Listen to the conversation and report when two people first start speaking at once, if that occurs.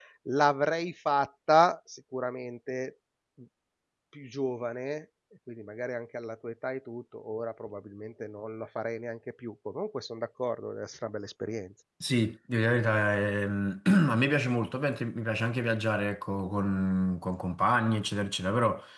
none

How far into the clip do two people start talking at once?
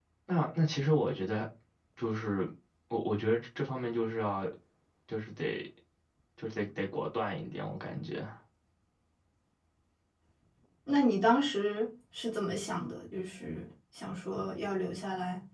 none

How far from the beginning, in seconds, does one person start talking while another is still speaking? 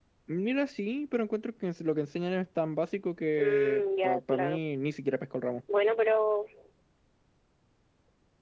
3.4 s

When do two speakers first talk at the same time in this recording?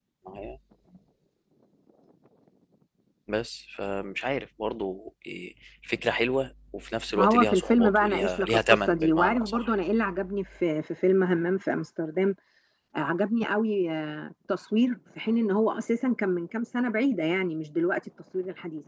7.1 s

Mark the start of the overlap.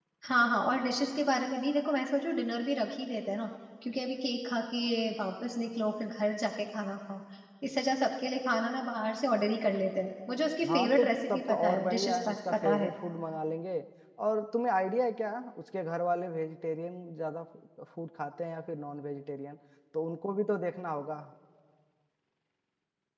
10.6 s

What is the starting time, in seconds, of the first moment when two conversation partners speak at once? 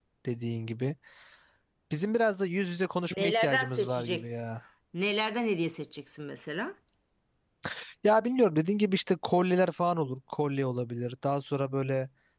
3.1 s

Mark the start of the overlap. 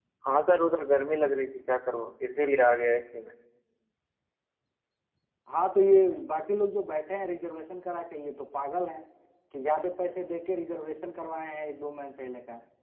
none

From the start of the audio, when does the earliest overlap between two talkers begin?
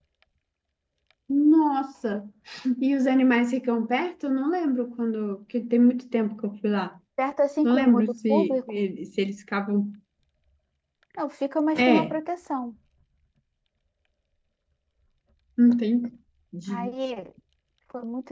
7.6 s

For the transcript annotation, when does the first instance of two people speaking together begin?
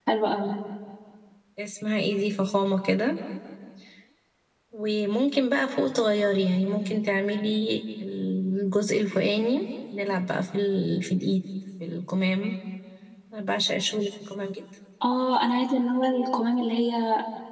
none

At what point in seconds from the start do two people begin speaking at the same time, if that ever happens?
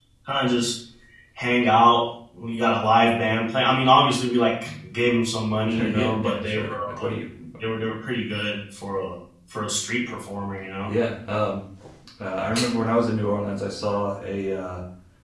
5.6 s

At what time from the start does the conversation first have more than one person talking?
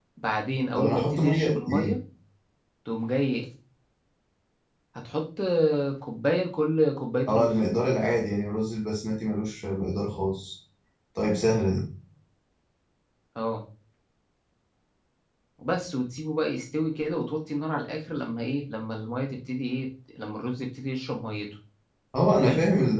0.8 s

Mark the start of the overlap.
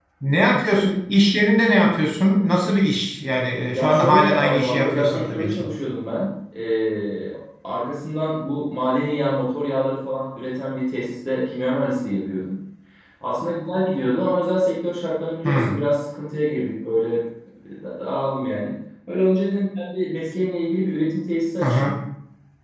3.7 s

